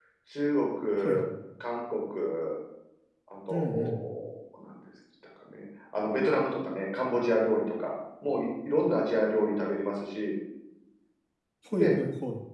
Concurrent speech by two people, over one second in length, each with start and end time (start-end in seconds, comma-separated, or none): none